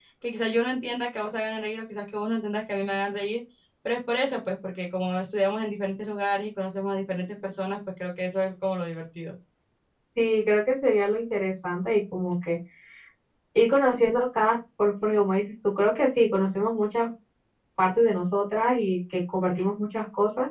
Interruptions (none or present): none